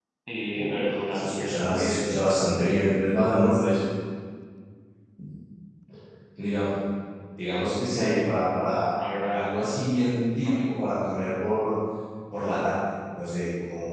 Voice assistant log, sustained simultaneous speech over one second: present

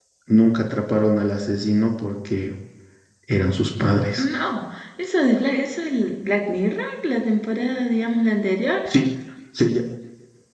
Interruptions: none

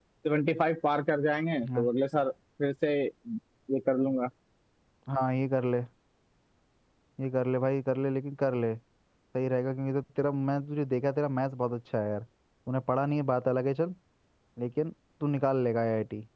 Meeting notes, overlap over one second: none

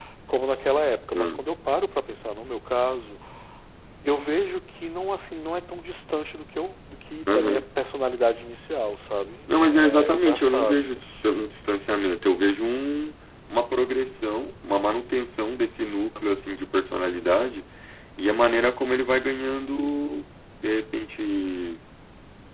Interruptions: present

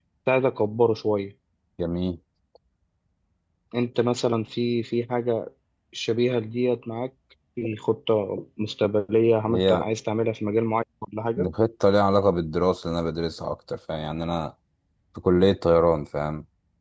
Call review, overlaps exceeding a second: none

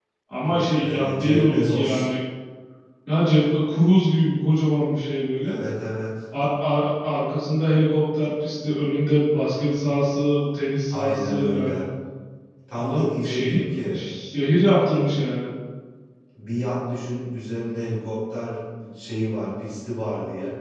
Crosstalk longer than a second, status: present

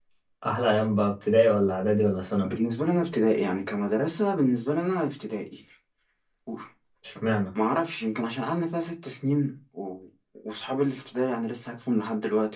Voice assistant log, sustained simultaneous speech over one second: none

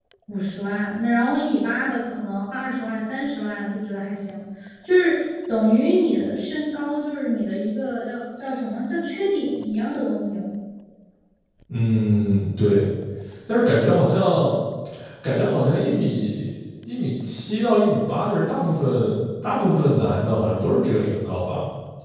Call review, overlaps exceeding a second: none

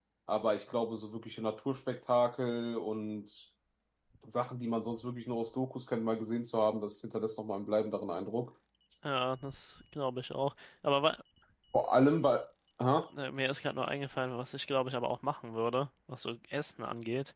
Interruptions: none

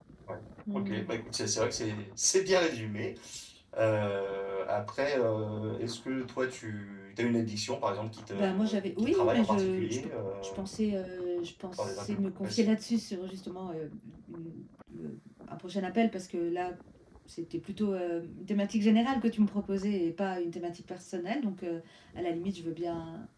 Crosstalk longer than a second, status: present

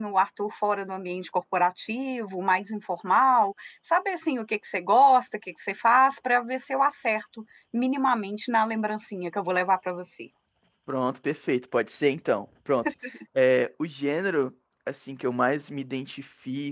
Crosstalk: none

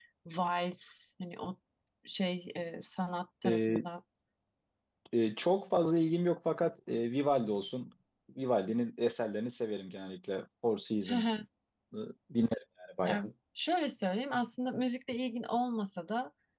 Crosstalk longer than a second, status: none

